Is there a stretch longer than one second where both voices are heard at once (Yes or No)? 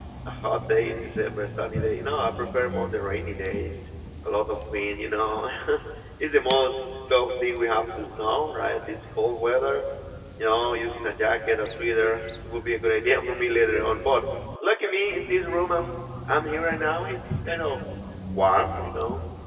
No